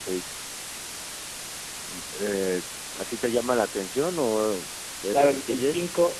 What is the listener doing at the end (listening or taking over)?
taking over